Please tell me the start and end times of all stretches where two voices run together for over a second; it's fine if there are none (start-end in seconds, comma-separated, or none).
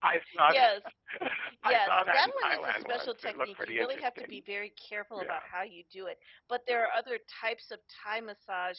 1.6-4.4